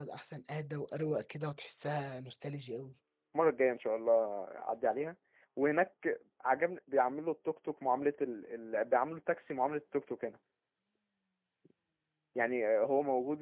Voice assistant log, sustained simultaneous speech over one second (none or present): none